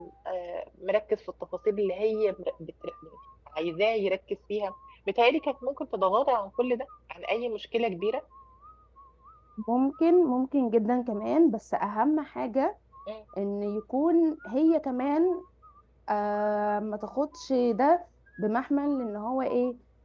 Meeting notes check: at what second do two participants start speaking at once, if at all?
none

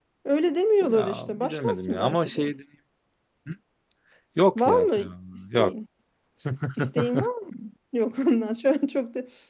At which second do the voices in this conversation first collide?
0.8 s

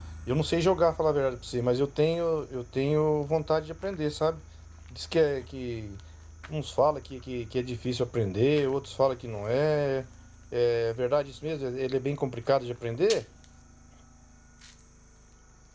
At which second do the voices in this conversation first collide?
none

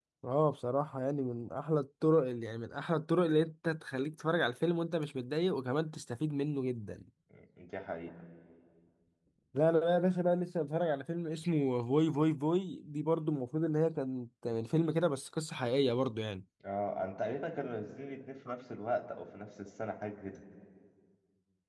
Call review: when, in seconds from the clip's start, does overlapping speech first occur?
none

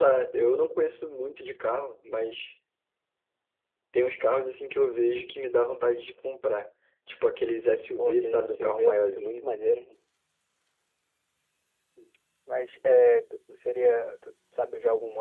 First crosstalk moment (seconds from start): 8.0 s

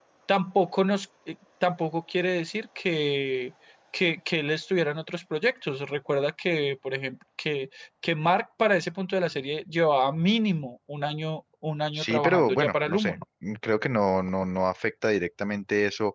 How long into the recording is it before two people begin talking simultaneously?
11.9 s

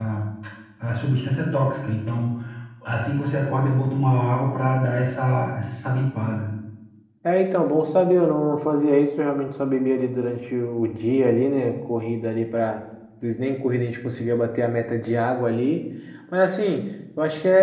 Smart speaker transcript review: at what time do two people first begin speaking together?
none

